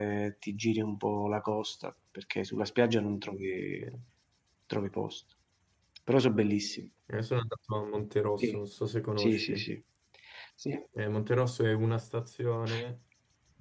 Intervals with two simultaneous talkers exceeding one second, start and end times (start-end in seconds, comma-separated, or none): none